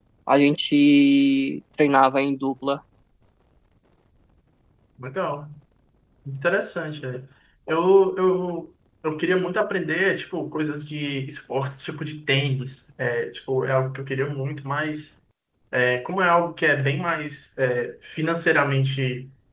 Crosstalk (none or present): none